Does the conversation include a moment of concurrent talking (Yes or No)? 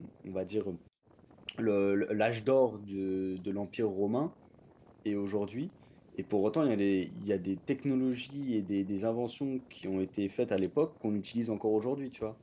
No